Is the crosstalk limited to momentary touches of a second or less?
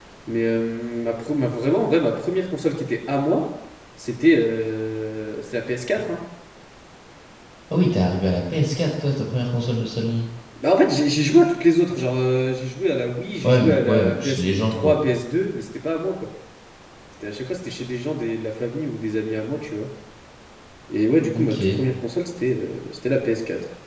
No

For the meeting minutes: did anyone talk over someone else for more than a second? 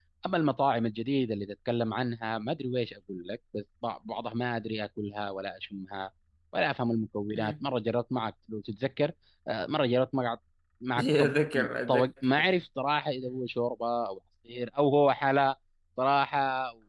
No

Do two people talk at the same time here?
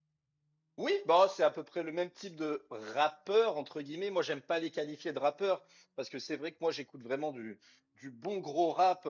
No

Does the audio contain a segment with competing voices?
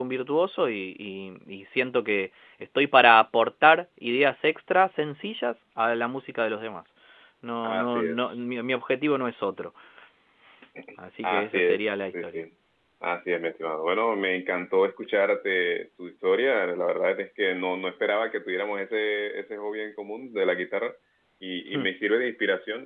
Yes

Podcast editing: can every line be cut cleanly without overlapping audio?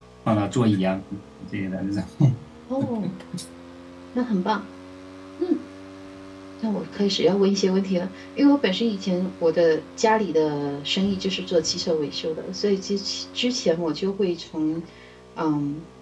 Yes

